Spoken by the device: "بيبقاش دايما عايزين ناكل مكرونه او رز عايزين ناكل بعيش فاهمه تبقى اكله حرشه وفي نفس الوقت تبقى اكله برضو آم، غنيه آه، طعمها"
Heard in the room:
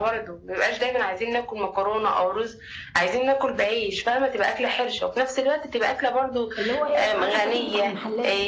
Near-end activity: present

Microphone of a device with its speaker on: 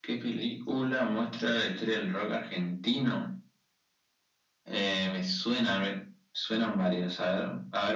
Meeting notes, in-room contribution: none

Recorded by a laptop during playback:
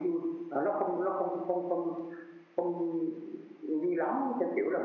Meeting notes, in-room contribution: none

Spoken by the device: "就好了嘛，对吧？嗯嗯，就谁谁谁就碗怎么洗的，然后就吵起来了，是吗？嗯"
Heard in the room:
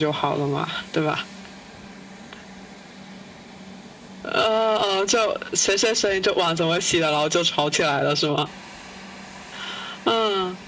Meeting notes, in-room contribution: none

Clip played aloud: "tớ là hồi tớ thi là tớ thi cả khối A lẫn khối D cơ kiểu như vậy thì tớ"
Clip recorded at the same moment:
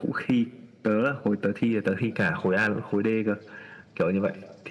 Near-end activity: none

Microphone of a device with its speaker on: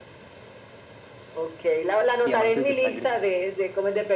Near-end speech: present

